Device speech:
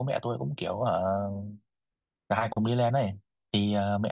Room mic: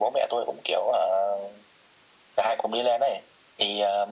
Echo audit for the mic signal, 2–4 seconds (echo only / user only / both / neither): echo only